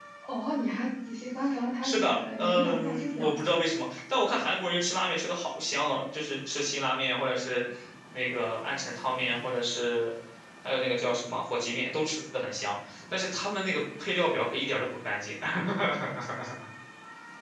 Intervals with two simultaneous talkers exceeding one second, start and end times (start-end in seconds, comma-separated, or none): 1.8-3.3